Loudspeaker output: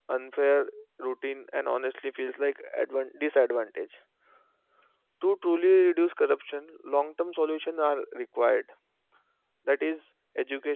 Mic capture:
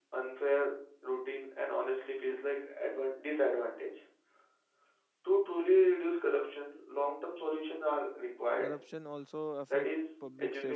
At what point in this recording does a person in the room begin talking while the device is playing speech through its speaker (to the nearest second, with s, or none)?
9 s